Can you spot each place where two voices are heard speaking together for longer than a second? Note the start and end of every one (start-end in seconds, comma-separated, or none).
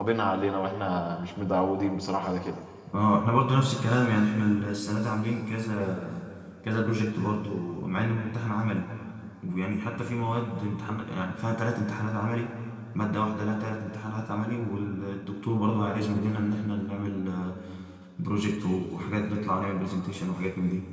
none